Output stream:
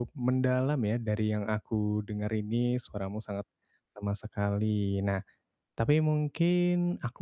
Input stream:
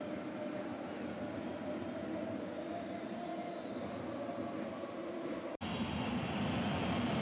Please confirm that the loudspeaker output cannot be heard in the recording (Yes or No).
Yes